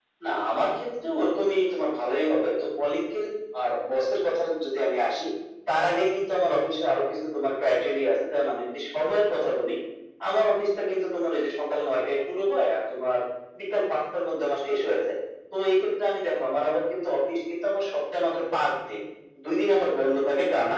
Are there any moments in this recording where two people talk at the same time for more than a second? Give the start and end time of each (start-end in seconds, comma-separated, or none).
none